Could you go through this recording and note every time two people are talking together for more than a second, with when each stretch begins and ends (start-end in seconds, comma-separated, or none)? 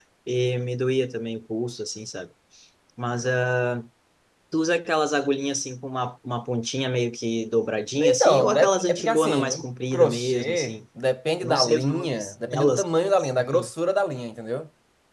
8.0-10.8, 11.4-12.8